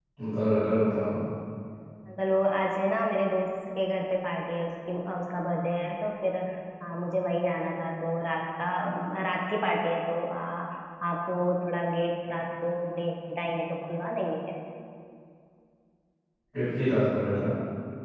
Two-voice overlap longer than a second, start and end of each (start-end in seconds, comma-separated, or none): none